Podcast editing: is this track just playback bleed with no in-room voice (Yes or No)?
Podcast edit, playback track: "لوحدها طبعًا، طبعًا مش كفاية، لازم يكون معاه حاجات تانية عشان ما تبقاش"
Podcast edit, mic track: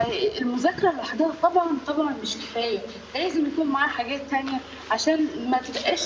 Yes